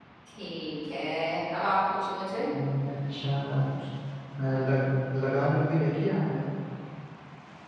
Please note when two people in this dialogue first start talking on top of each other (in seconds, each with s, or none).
none